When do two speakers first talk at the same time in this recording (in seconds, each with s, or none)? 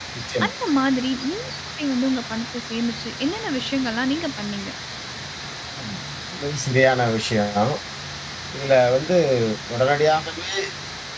none